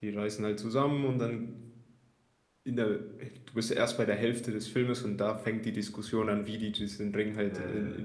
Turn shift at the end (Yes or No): No